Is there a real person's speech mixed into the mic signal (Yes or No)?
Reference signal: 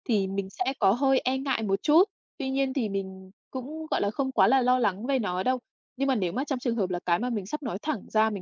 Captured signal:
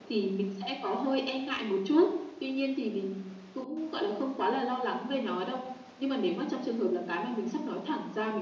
No